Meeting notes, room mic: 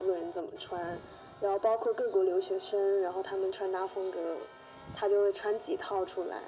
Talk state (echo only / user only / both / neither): echo only